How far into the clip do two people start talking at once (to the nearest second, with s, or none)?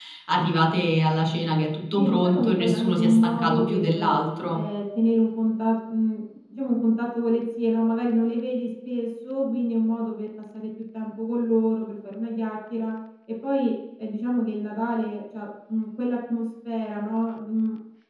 2 s